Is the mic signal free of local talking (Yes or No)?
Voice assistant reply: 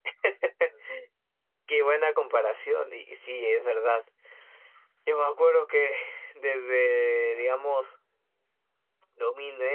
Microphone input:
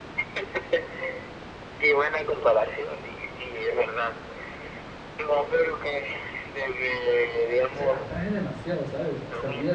No